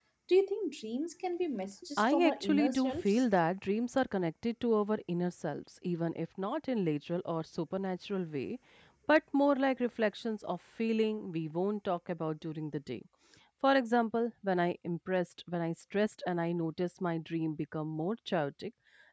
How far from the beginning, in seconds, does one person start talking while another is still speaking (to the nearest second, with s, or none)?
2 s